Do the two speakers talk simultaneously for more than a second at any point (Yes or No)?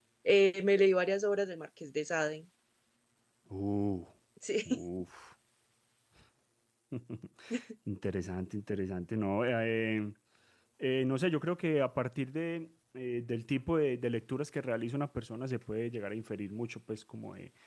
No